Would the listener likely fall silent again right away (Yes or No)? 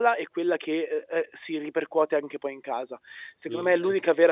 Yes